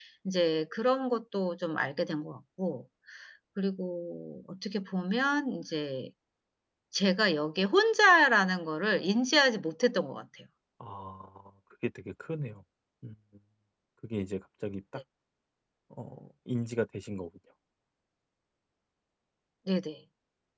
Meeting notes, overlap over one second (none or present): none